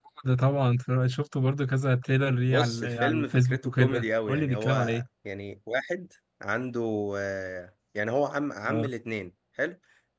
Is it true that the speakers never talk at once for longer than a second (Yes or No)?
No